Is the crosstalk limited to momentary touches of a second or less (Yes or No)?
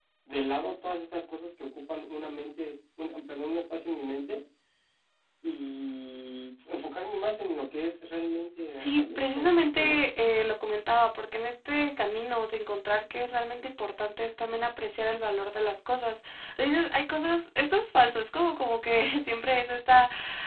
No